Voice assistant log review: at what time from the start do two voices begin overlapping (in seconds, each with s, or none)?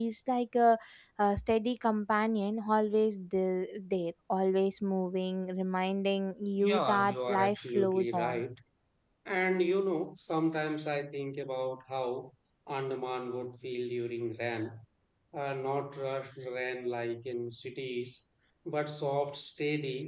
6.6 s